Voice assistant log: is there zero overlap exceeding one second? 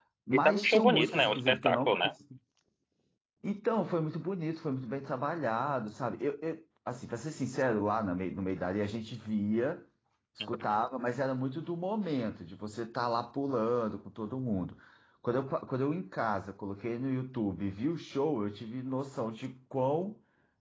No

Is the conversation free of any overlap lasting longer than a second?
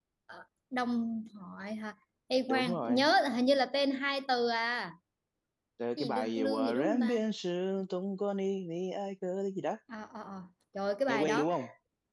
No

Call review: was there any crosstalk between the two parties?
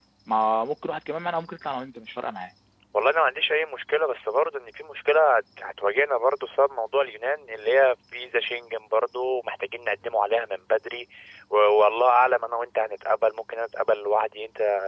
No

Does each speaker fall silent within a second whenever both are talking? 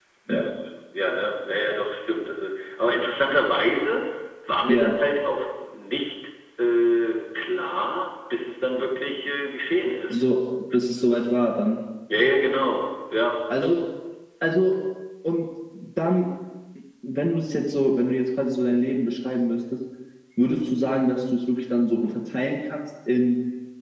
Yes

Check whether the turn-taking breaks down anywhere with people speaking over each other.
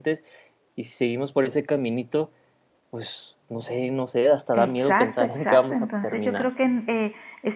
Yes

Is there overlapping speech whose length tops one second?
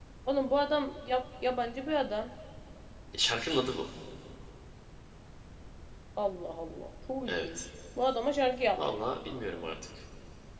No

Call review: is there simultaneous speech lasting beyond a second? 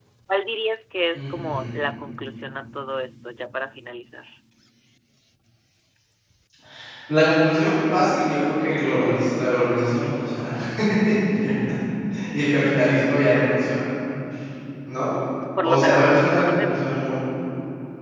Yes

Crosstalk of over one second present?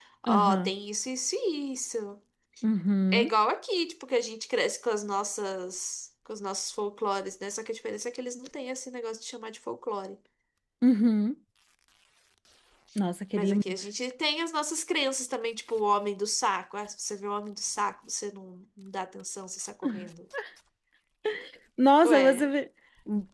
No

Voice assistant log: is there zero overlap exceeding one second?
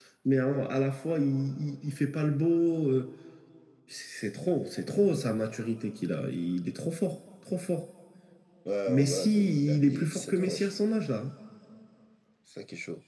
No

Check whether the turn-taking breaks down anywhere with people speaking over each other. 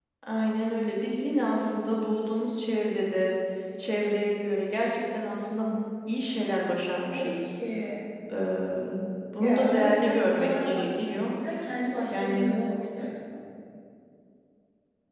Yes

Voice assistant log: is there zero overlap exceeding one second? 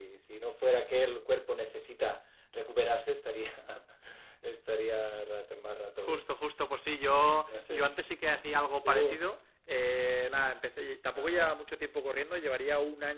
Yes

